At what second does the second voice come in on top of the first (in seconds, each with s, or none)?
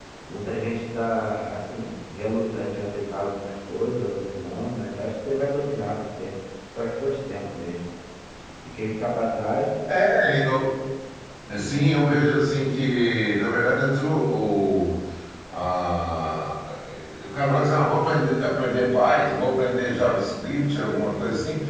none